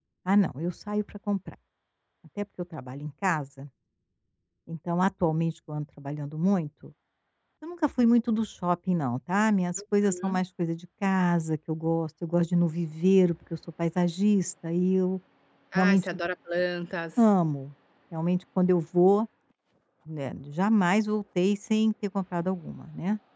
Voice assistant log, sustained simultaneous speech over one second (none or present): none